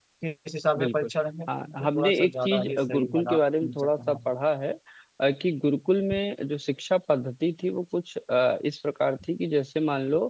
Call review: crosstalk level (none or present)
present